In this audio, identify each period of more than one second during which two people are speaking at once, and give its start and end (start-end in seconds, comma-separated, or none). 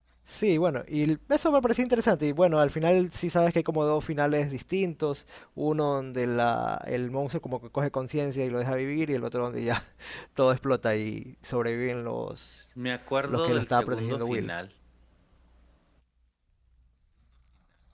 13.2-14.5